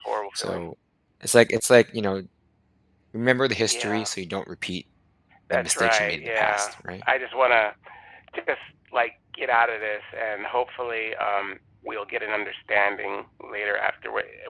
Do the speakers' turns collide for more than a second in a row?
Yes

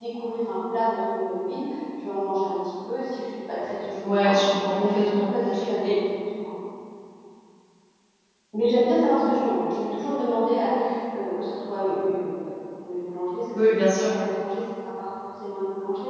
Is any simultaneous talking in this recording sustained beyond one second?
Yes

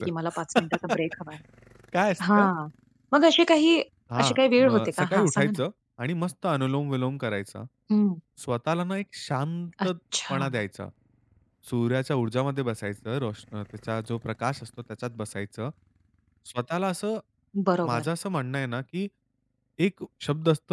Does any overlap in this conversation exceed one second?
Yes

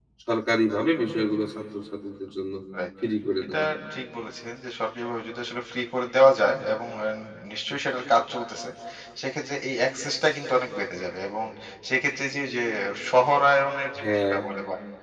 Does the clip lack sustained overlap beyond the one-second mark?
Yes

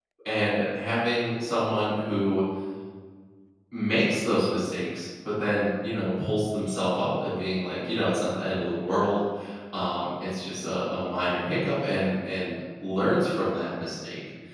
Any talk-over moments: No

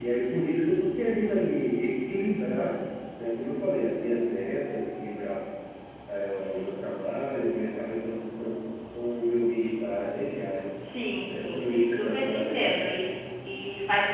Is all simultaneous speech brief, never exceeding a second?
No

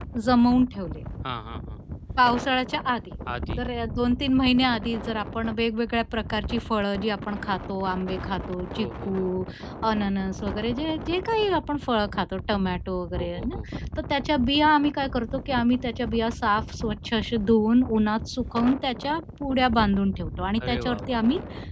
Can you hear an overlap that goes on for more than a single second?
No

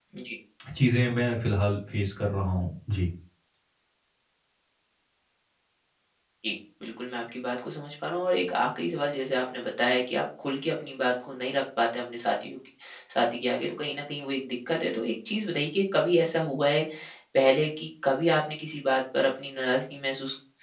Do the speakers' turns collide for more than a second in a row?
No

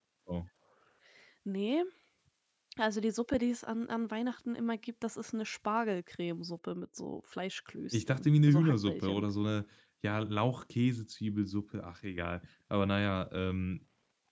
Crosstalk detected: Yes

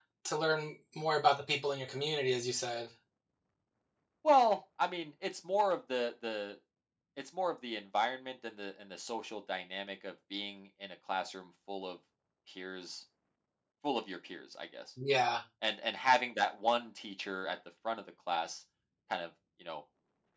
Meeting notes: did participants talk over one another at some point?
No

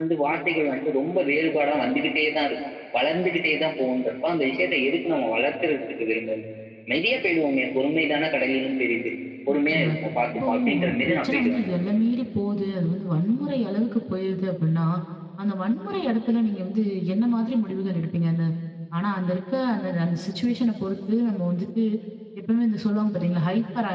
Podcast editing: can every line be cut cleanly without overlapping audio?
No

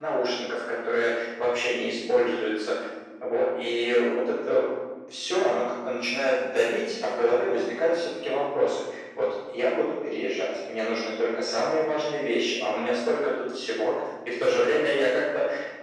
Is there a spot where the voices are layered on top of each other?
No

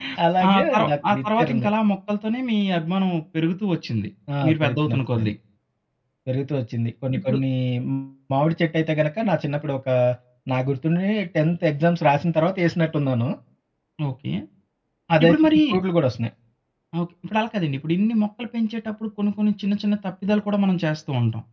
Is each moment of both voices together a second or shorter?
No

